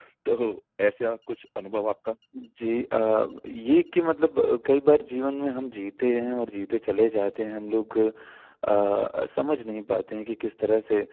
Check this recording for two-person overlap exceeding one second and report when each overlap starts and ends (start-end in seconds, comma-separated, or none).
none